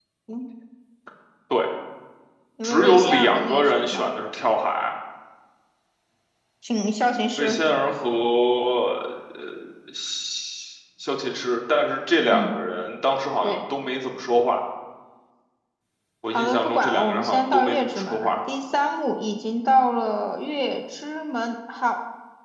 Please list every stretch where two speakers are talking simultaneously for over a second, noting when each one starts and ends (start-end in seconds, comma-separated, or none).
2.6-4.1, 16.3-18.4